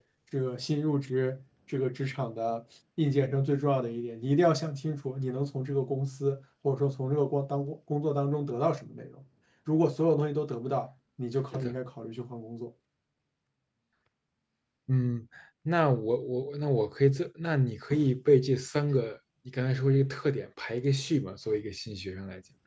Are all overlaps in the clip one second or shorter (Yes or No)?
Yes